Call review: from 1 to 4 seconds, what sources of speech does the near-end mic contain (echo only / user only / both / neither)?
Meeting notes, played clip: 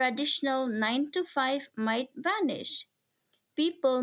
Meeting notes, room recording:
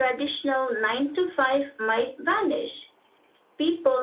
echo only